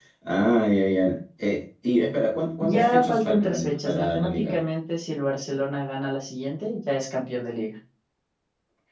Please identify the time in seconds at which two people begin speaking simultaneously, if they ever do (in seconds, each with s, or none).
2.6 s